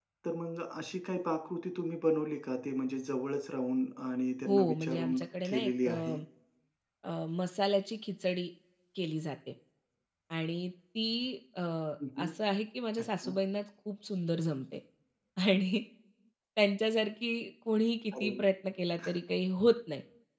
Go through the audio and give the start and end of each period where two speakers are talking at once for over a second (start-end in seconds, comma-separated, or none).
4.5-5.9